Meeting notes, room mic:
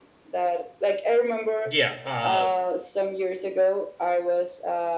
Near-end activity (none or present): present